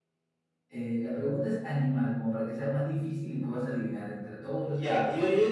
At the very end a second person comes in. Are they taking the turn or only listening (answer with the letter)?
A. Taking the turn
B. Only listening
A